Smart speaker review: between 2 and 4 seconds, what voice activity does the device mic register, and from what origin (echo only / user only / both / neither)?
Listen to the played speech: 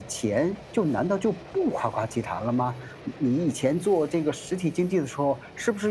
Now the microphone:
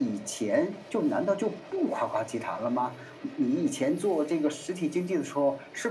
echo only